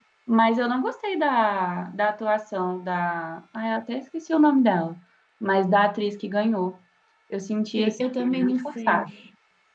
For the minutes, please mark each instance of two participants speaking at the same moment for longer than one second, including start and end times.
7.8-9.1

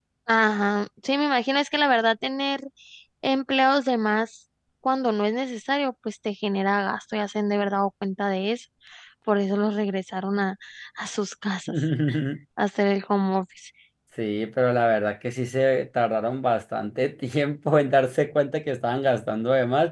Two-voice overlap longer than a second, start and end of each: none

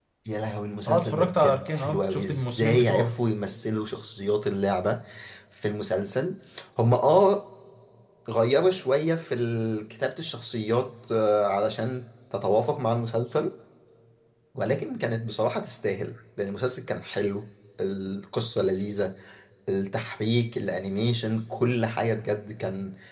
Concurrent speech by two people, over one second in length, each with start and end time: 0.9-3.1

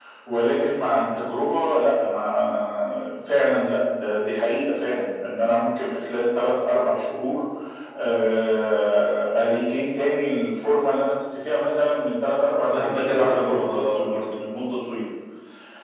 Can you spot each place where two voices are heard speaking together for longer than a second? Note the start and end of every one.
12.7-14.2

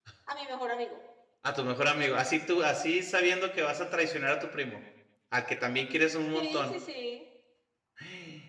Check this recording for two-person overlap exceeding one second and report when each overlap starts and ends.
none

